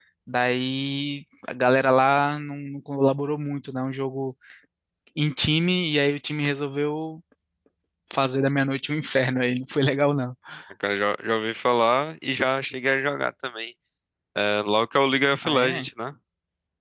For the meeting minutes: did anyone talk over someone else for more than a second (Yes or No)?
No